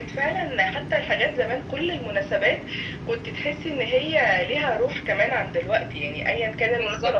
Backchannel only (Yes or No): No